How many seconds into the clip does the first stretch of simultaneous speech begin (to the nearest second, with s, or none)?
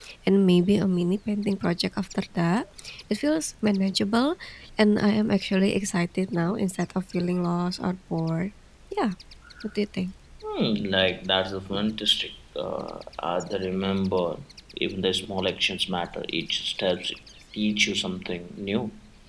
none